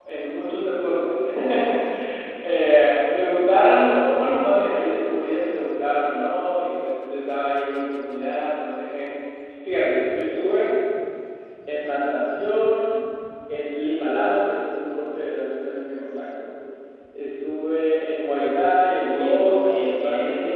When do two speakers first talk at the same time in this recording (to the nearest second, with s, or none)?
19 s